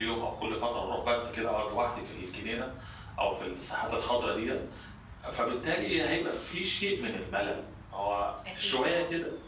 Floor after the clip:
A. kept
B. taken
A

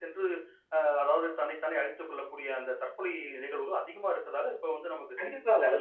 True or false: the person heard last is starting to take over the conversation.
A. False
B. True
B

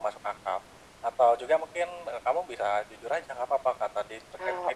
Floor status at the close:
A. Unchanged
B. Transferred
A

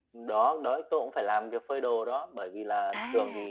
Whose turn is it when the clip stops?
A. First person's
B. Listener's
A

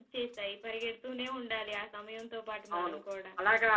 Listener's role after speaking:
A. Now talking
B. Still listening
A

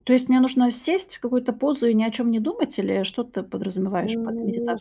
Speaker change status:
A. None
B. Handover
B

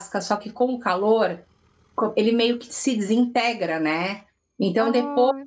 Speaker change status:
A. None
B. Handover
A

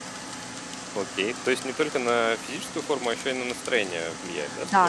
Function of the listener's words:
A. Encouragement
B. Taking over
B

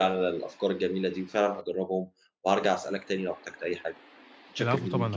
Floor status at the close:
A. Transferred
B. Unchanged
A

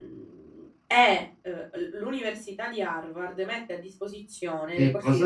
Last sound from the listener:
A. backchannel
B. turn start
B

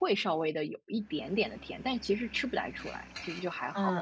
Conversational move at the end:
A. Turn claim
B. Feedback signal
A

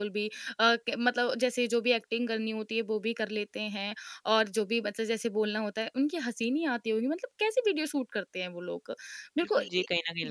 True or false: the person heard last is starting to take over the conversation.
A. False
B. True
B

